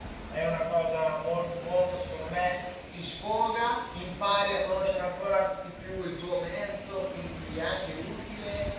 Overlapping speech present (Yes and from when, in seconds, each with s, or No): No